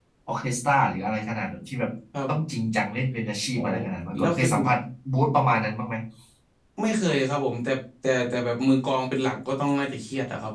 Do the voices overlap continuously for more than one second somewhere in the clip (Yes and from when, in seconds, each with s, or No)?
No